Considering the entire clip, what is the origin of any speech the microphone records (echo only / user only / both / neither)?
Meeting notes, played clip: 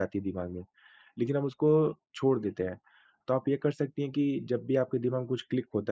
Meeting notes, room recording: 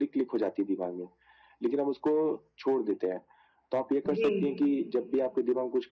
both